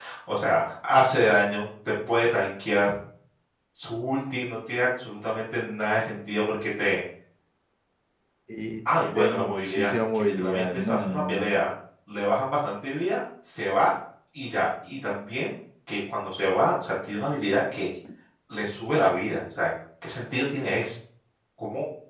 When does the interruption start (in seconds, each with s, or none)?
9.0 s